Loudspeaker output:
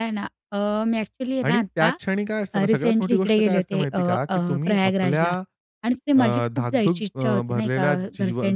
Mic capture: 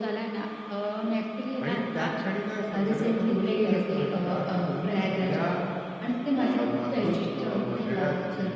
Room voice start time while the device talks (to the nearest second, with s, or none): none